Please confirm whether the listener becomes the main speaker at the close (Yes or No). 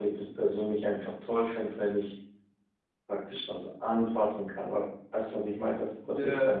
No